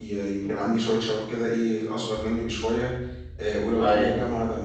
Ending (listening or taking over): listening